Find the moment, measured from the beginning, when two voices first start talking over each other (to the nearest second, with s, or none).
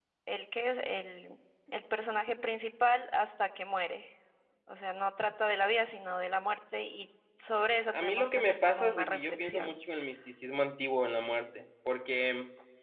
8 s